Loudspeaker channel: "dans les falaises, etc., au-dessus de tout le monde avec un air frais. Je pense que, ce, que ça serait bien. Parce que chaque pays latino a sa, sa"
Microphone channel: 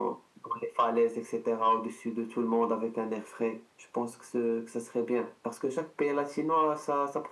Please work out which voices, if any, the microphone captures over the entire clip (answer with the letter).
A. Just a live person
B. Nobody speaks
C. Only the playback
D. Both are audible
C